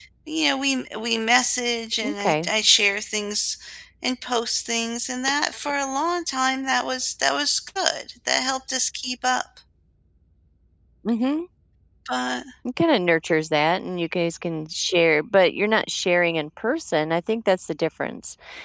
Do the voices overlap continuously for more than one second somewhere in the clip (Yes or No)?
No